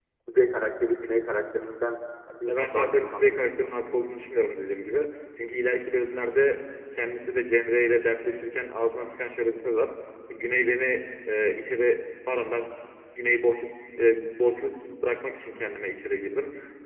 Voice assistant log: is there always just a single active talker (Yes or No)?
No